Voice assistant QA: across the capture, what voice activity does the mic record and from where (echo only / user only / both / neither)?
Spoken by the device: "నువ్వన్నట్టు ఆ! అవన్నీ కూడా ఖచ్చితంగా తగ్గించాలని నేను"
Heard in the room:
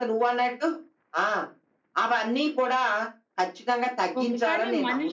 both